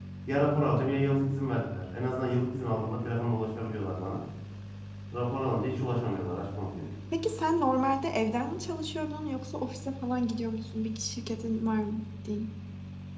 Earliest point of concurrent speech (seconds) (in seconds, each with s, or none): none